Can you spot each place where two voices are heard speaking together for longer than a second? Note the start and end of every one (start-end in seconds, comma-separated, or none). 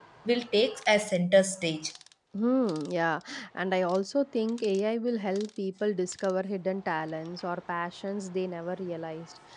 none